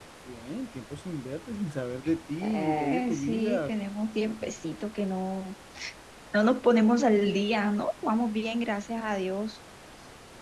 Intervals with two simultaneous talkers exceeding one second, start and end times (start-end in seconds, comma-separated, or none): 2.4-3.7